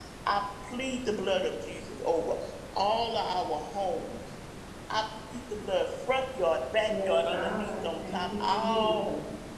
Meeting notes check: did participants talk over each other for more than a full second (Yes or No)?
Yes